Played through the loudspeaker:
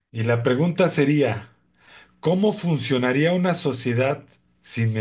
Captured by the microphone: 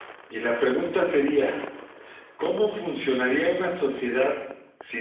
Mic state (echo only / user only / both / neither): echo only